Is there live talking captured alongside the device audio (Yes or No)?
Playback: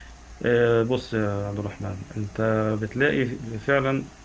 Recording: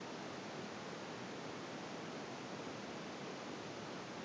No